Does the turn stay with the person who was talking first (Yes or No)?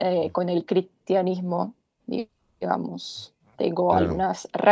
Yes